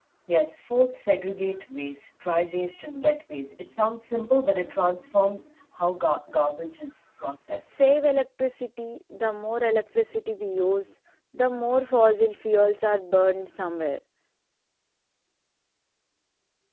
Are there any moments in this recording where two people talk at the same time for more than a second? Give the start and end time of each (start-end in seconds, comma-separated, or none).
none